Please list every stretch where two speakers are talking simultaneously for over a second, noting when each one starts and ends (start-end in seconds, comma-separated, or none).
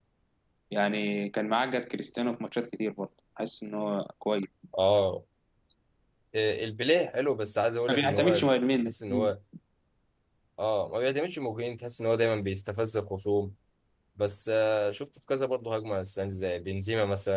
none